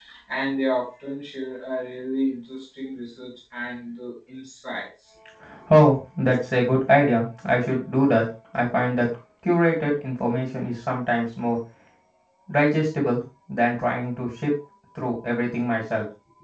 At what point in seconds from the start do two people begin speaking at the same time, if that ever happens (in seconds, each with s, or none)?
none